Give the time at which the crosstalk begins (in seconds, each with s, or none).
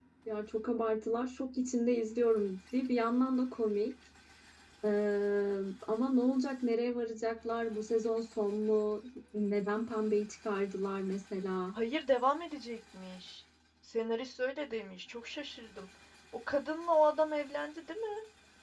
none